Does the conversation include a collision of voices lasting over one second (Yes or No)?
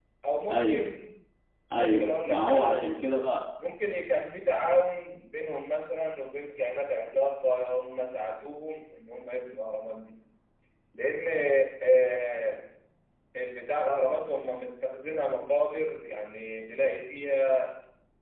Yes